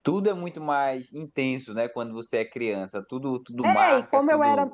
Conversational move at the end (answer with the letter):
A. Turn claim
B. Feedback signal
A